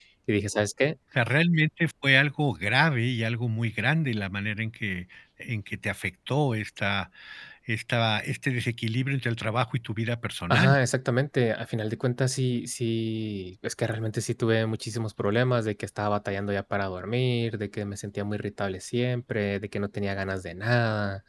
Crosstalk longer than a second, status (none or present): none